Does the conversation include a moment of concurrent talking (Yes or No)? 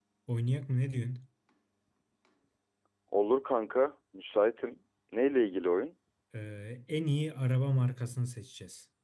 No